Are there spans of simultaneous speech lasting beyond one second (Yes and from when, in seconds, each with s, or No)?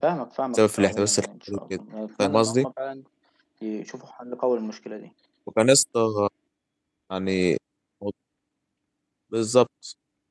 Yes, from 0.5 s